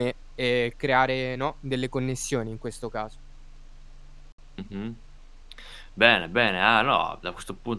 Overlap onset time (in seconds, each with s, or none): none